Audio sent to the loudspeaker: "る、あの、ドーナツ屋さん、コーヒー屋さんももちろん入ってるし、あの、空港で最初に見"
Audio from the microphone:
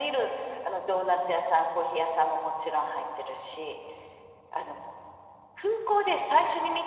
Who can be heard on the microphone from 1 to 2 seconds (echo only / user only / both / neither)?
echo only